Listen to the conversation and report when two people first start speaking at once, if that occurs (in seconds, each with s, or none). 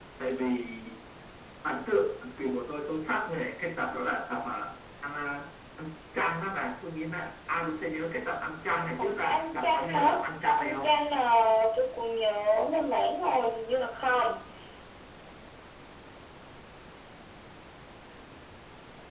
9.0 s